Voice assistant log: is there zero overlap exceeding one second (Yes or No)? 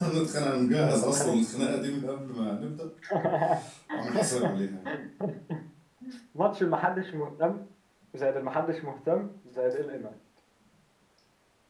Yes